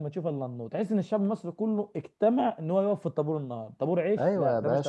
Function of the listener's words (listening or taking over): taking over